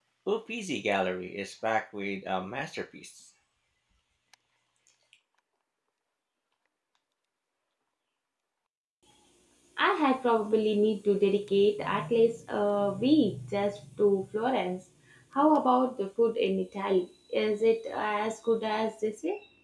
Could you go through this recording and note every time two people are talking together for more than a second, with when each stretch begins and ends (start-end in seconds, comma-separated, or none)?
none